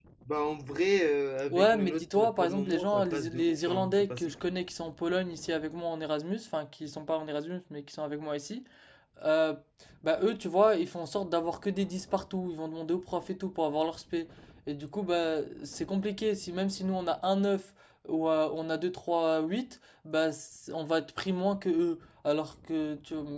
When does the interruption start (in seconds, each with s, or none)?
1.5 s